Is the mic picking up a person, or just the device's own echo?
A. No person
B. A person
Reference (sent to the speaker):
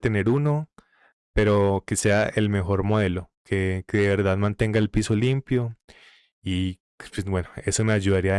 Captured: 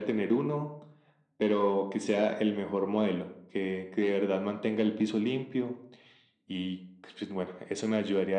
A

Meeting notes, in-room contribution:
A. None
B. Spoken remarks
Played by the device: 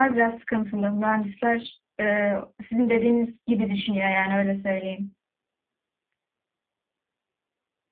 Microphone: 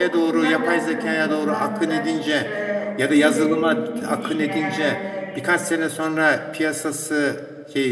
B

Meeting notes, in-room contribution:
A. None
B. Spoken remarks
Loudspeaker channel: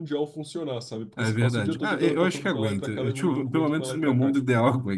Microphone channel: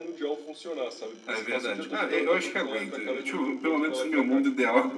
A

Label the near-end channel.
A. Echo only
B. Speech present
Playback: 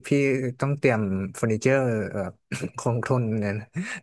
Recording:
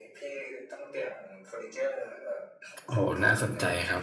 B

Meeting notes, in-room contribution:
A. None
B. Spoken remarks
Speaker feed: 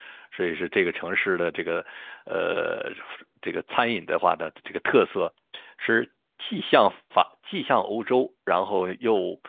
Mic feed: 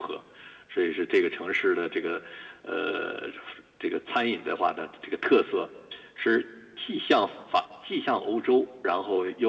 A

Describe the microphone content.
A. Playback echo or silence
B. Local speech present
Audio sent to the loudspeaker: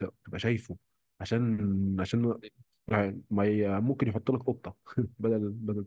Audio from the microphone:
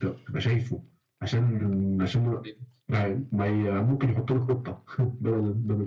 A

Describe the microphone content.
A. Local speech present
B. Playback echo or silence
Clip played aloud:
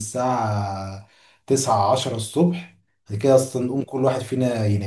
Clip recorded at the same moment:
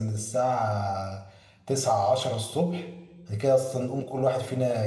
B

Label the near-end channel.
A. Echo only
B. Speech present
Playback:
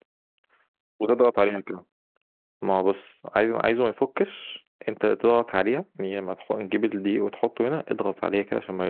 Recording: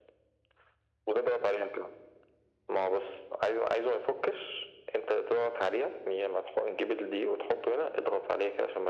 A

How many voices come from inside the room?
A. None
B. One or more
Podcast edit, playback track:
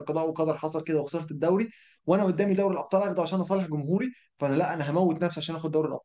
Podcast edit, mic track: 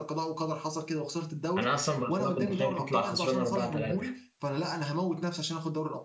B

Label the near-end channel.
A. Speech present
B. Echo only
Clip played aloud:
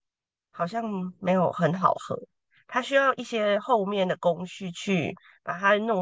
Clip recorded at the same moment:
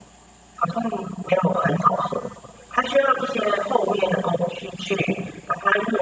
B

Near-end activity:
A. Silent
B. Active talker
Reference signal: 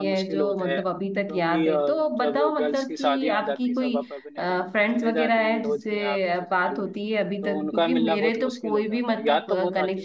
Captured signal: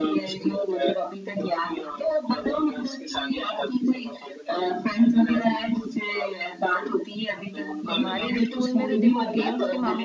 B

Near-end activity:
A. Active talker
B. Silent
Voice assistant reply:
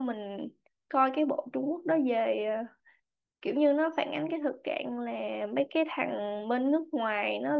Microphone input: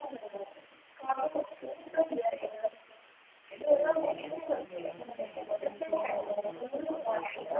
A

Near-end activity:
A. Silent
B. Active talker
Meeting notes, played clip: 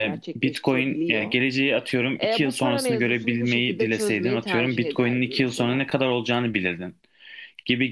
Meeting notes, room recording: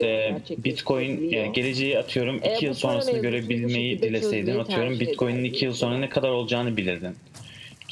A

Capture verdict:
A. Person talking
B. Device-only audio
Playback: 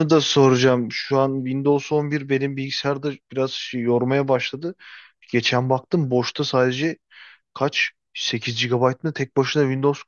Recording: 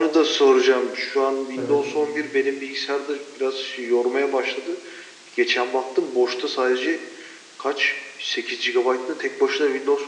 A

